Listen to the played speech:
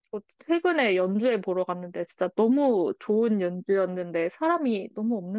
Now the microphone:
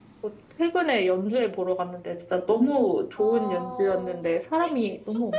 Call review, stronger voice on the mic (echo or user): echo